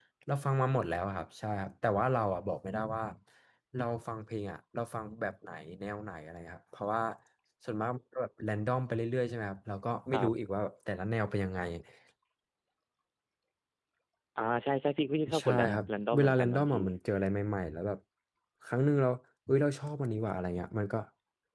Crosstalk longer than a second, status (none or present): present